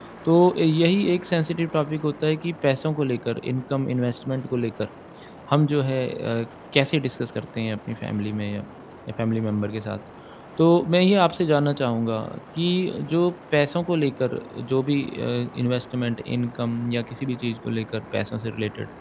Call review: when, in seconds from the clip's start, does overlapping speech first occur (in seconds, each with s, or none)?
none